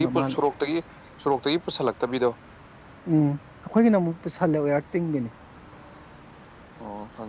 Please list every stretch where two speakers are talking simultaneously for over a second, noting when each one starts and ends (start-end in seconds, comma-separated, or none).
none